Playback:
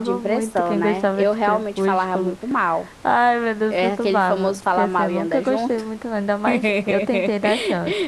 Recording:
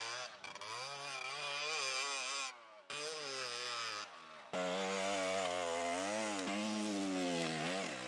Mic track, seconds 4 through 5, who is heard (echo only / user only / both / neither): neither